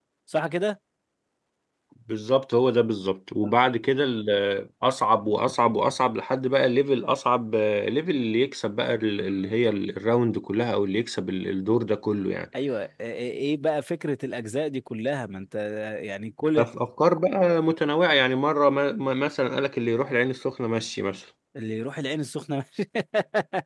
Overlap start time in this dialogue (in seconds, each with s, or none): none